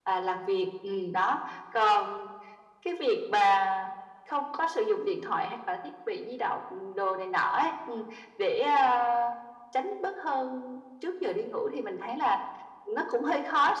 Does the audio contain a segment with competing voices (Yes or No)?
No